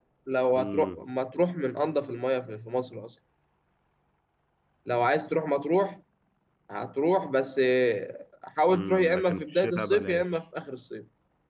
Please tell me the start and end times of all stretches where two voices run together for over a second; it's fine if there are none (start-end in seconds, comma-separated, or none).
8.7-10.2